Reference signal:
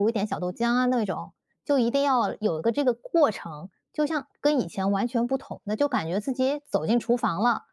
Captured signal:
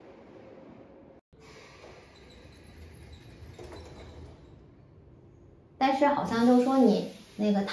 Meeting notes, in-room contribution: present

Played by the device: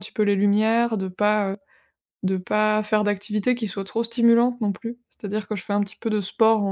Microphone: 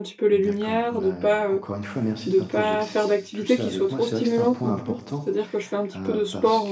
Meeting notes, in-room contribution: present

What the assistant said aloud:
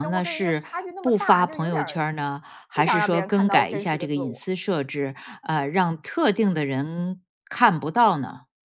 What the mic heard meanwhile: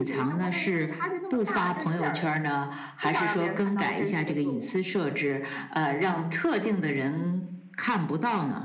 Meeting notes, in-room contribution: none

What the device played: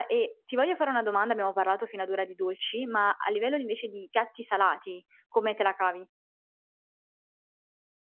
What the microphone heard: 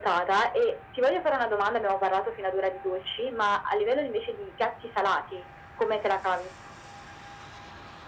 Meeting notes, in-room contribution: none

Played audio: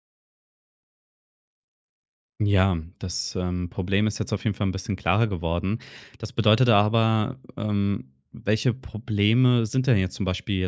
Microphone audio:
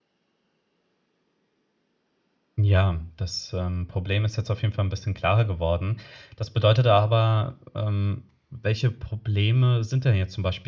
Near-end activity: none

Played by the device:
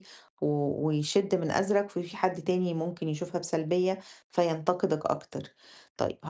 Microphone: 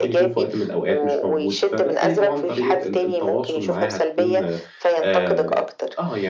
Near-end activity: present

